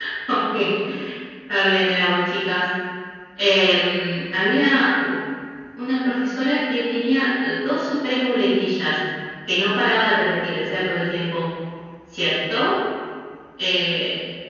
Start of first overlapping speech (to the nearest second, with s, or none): none